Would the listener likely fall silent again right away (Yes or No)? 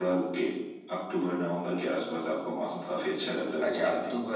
No